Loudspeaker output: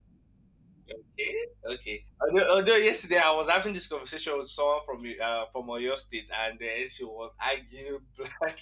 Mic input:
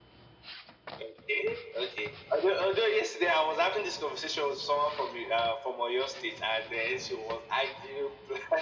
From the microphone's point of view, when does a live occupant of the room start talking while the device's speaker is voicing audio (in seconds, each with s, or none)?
none